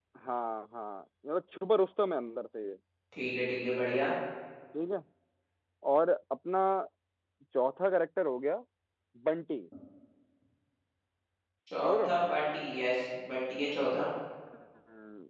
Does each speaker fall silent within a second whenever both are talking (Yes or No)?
Yes